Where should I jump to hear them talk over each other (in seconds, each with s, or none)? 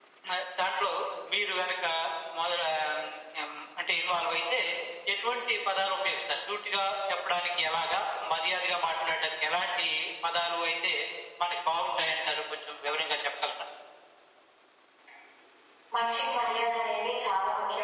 none